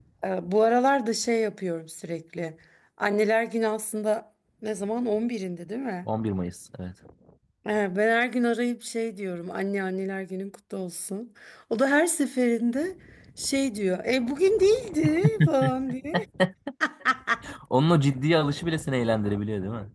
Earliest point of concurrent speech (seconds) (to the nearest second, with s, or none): none